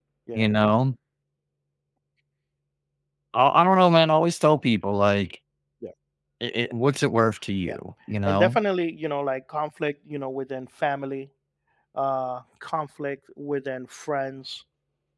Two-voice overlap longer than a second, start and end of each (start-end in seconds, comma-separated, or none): none